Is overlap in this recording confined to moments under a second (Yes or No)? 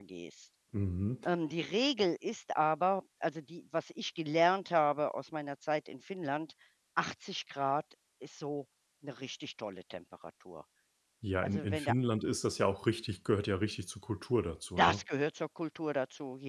Yes